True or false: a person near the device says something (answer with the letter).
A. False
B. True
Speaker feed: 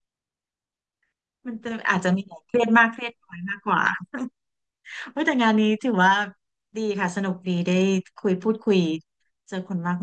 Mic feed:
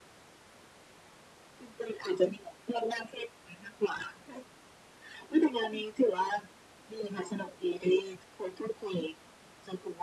A